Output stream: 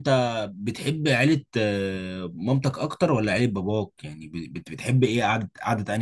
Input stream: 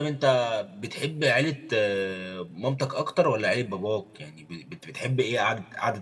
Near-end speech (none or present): none